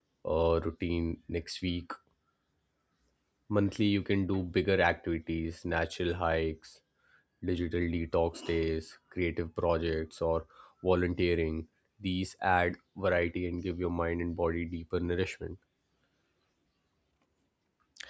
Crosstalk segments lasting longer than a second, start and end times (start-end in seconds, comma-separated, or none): none